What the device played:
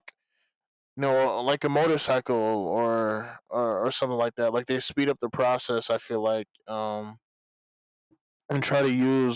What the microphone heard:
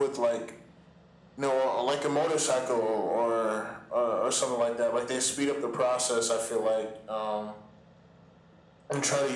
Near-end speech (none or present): none